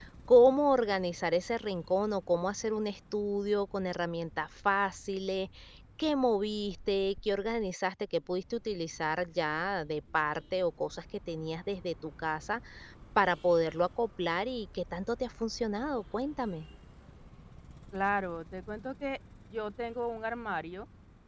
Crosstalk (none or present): none